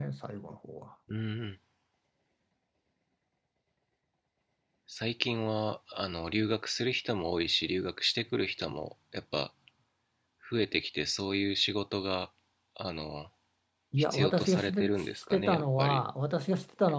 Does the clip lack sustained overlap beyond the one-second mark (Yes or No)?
No